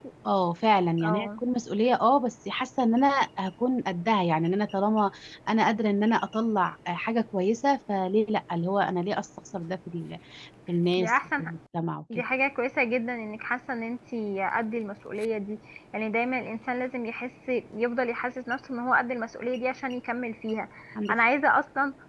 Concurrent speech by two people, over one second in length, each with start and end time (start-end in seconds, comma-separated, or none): none